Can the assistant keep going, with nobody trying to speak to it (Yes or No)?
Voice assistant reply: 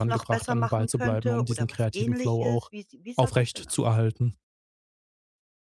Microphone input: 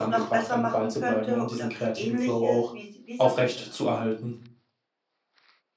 Yes